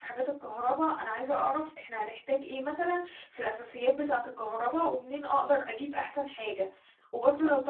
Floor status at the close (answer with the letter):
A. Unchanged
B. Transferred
A